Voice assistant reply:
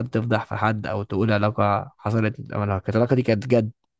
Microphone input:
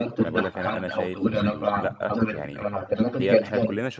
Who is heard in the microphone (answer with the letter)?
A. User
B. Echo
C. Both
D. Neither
C